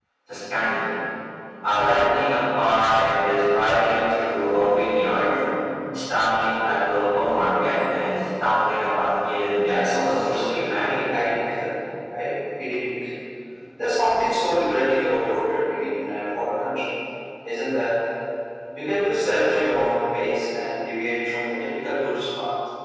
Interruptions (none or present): present